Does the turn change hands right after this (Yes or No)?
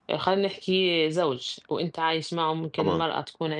No